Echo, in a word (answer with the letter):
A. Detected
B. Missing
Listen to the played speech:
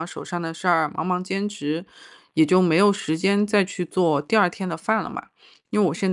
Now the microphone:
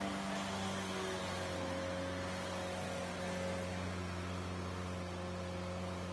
B